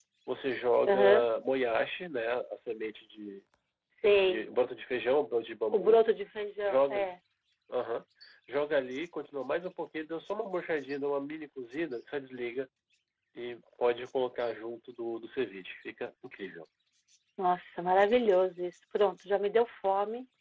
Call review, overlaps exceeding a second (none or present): none